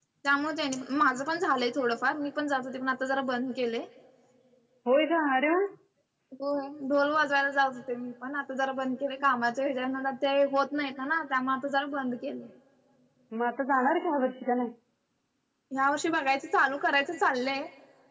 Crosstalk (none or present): none